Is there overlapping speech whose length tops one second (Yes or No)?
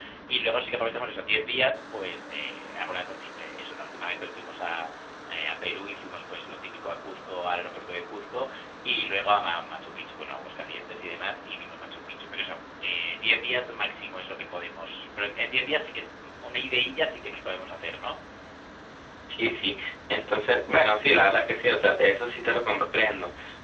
No